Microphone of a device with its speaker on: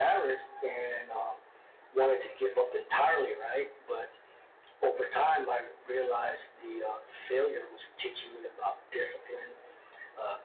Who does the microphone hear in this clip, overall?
echo only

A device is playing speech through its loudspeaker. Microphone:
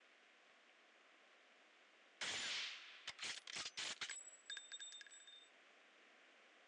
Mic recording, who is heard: neither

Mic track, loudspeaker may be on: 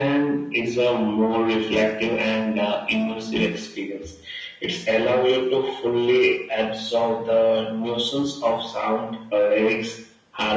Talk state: echo only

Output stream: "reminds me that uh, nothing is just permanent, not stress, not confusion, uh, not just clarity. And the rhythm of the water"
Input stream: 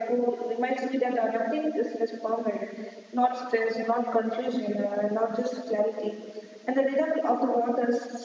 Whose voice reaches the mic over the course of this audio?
echo only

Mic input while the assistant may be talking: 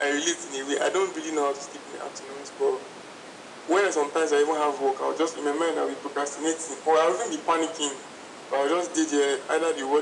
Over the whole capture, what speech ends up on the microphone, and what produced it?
echo only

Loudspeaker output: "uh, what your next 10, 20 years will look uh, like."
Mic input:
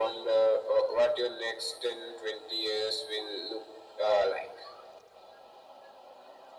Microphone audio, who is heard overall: echo only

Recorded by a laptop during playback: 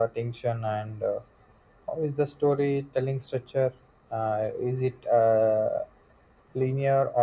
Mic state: echo only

